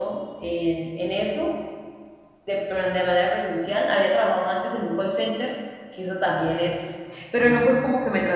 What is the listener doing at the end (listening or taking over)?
listening